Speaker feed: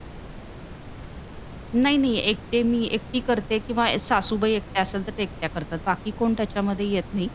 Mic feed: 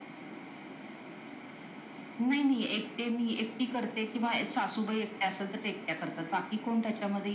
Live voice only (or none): none